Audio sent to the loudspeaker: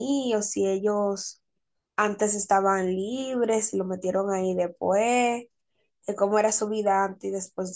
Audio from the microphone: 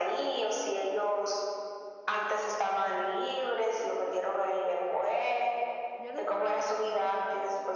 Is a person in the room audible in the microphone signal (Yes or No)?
Yes